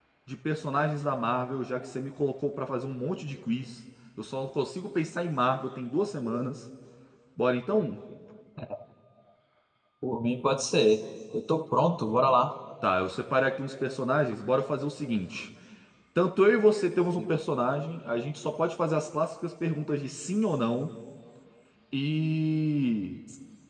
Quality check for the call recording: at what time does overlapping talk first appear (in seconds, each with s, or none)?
none